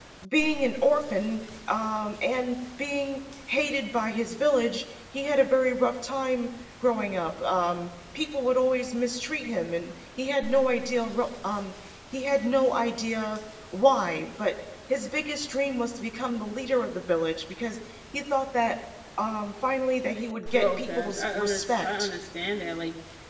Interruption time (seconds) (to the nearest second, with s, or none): 21 s